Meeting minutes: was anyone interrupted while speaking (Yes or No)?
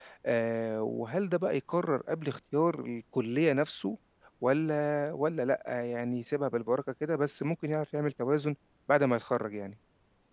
No